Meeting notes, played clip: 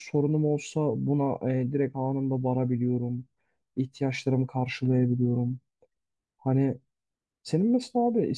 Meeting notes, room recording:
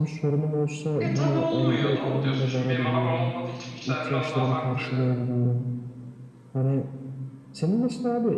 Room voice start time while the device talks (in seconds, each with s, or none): 1.0 s